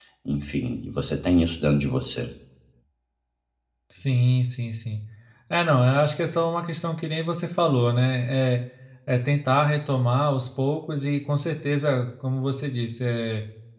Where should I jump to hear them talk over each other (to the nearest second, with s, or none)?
none